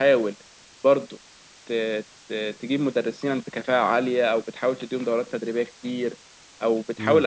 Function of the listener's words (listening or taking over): listening